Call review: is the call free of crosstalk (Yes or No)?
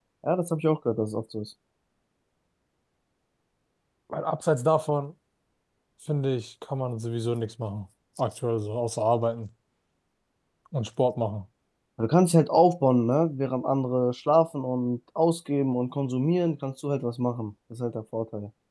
Yes